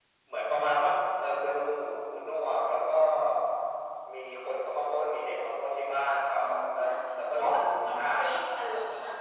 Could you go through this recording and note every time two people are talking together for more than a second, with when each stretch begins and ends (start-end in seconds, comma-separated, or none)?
none